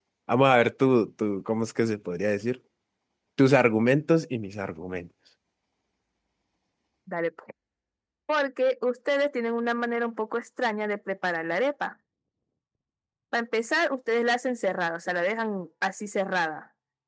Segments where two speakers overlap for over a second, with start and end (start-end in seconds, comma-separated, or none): none